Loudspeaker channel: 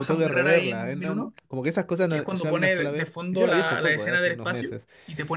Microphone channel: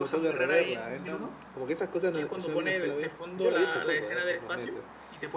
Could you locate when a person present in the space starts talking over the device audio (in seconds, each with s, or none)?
none